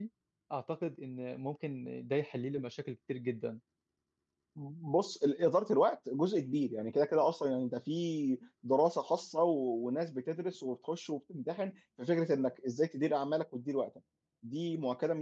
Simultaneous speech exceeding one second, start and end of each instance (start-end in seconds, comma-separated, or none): none